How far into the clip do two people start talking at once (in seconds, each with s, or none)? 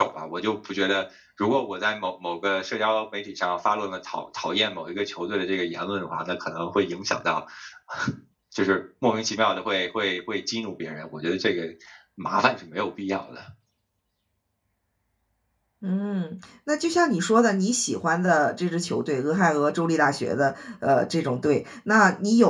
none